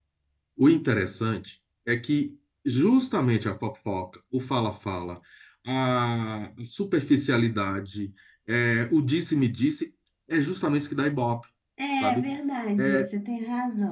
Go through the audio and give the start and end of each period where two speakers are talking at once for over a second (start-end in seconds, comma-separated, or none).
none